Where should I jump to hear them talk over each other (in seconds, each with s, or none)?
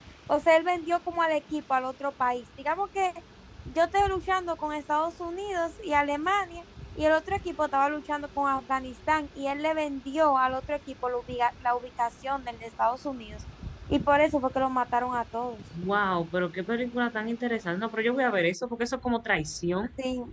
none